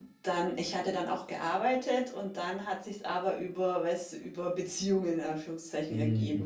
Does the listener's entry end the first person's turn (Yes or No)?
No